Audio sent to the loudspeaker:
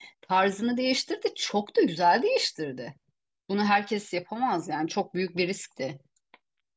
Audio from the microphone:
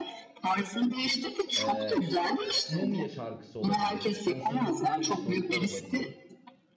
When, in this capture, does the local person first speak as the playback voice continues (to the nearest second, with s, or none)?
2 s